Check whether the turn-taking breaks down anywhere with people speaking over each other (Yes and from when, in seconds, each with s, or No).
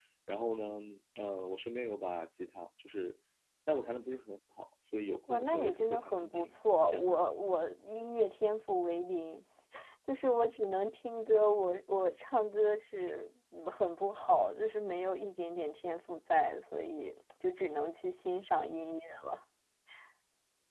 Yes, from 5.3 s